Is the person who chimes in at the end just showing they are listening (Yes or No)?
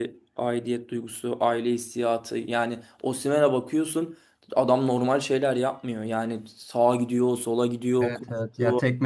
No